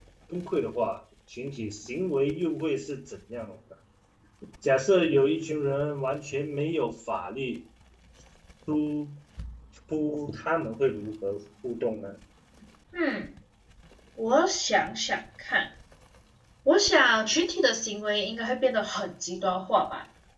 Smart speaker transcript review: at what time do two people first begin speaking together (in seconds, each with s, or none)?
none